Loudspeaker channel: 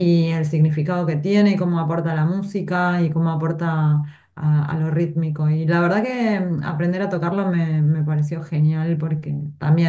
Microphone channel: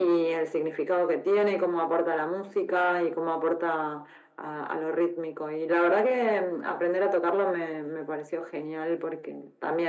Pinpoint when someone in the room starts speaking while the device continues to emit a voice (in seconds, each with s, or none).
none